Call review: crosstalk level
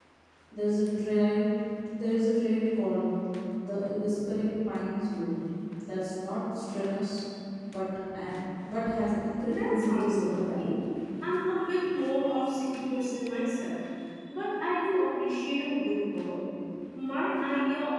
present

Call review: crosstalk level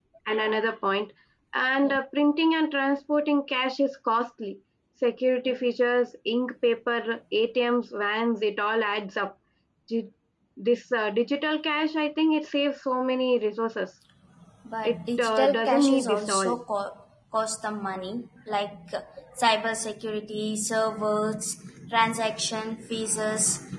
present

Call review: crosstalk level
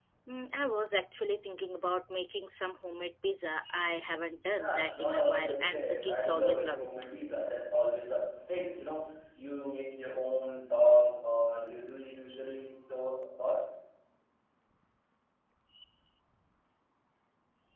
present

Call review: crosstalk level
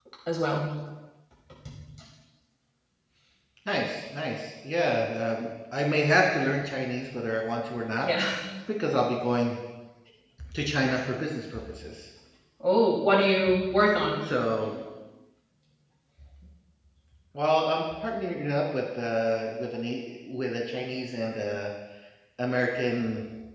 none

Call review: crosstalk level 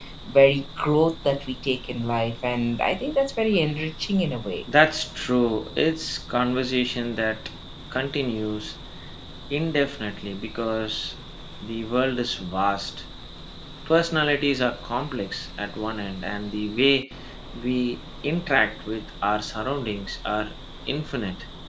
none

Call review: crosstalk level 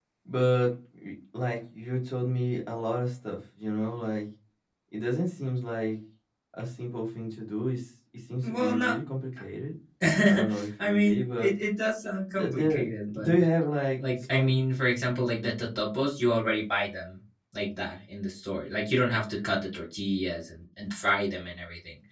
present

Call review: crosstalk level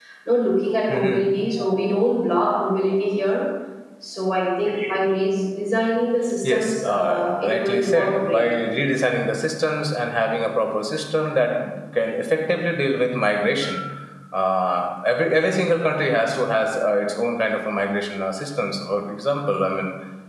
present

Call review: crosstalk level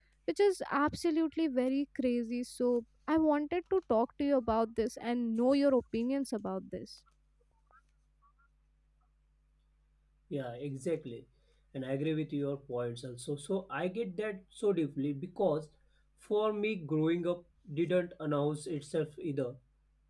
none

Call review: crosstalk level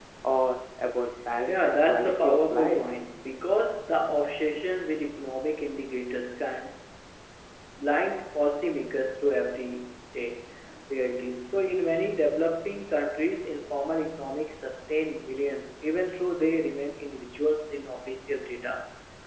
present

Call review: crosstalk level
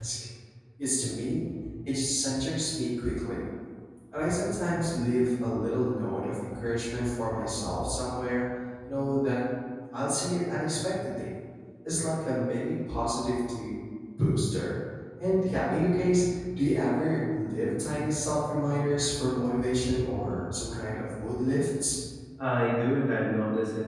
none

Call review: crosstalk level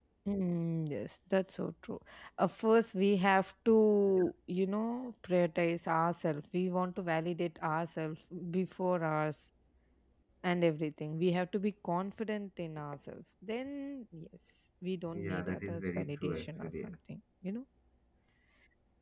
present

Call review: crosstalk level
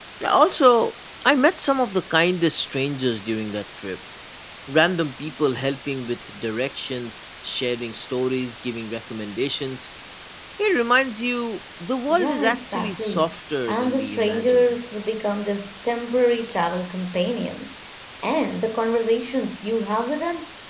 present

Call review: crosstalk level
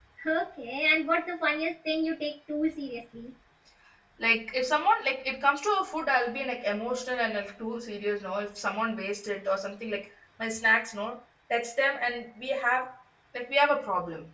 none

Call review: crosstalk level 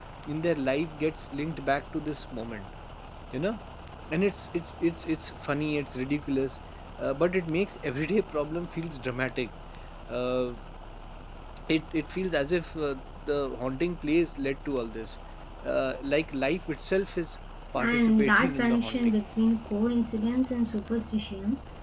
present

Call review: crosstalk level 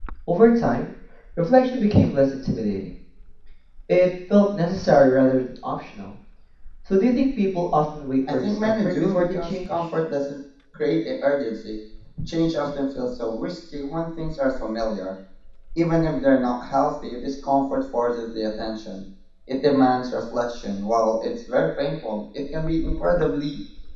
present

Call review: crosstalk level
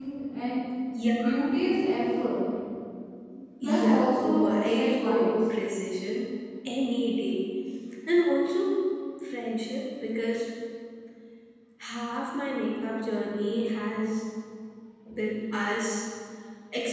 present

